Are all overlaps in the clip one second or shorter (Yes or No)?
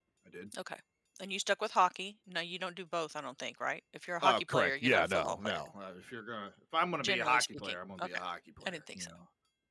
No